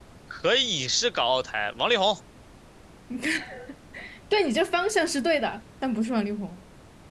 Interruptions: none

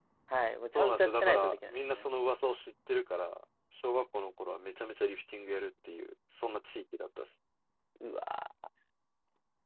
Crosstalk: present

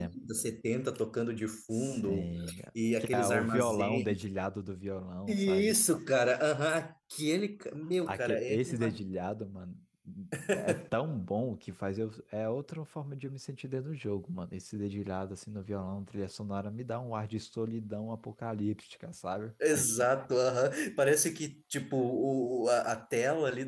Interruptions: present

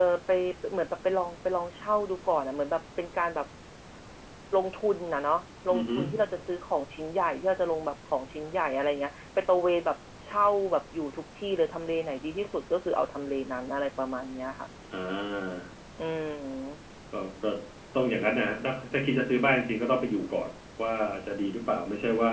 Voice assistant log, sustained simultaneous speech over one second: none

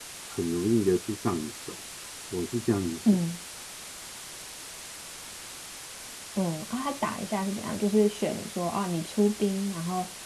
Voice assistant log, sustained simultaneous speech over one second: none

